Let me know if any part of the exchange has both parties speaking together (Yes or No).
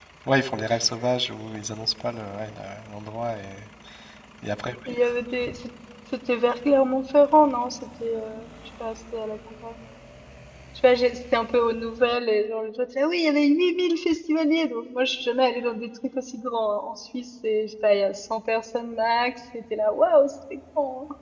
No